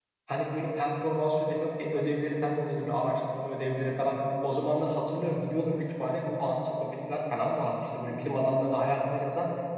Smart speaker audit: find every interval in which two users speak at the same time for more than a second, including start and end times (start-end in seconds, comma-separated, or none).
none